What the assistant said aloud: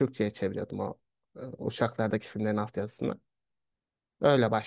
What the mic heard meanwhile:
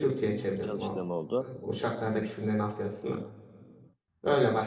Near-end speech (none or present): present